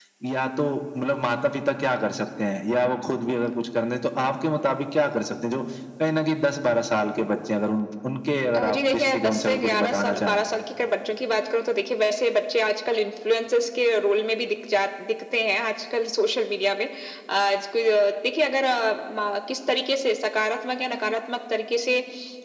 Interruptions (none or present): present